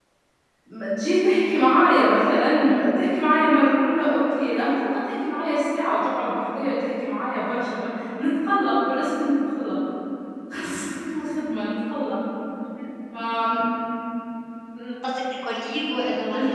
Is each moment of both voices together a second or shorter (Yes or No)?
Yes